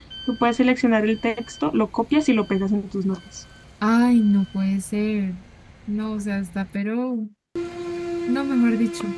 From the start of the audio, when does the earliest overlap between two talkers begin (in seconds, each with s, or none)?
none